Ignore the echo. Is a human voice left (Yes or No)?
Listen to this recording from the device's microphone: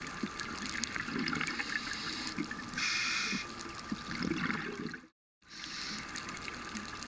No